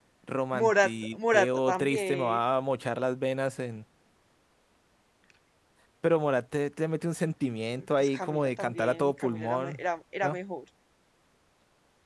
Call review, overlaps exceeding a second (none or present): present